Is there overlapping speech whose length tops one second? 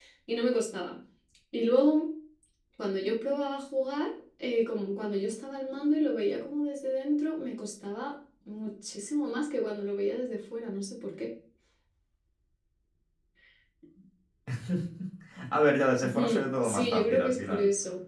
Yes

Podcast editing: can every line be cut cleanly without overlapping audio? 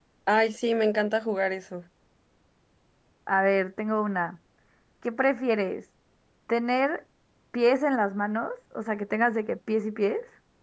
Yes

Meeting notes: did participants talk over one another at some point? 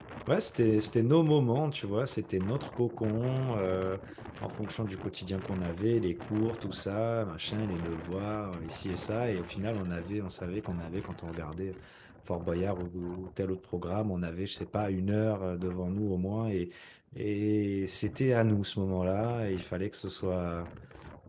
No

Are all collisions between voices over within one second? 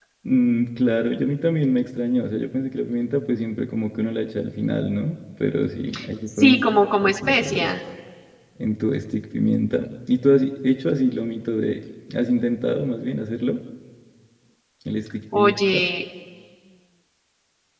No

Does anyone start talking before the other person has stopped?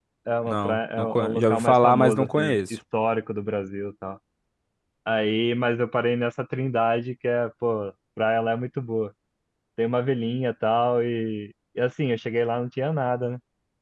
Yes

